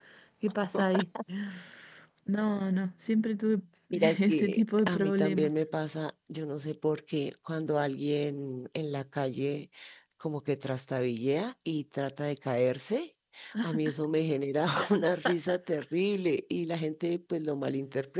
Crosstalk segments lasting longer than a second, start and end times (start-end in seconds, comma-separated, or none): 4.2-5.5